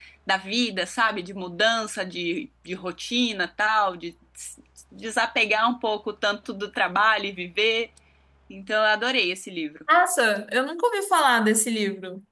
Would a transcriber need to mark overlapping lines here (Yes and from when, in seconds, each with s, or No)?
No